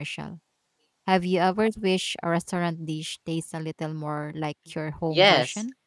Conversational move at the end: taking over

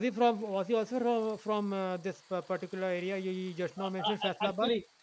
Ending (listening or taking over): taking over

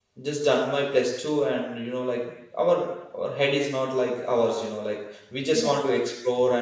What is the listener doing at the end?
listening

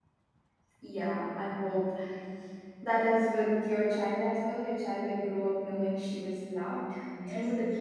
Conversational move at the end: taking over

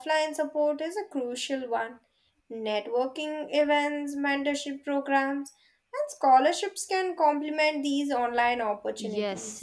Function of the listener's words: taking over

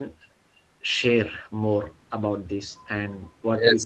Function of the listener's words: taking over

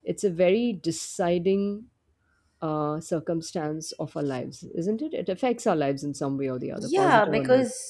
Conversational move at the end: taking over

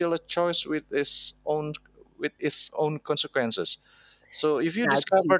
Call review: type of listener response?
taking over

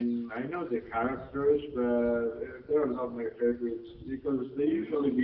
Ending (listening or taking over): listening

